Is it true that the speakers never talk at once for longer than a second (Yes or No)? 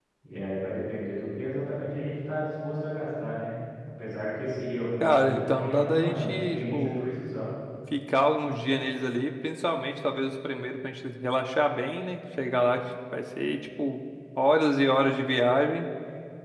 No